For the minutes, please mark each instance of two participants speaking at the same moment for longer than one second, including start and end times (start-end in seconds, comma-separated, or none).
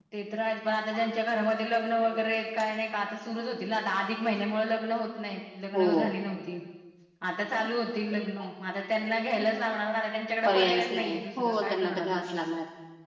10.4-12.2